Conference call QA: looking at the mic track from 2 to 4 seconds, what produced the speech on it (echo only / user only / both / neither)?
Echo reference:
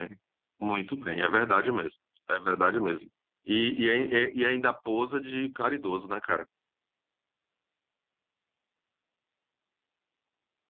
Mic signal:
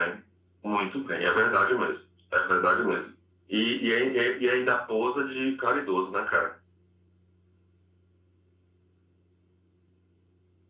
echo only